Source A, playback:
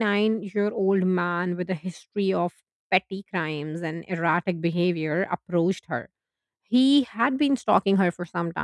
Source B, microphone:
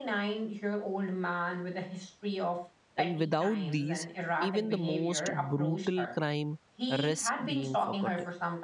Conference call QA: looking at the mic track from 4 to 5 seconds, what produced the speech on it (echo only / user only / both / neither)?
both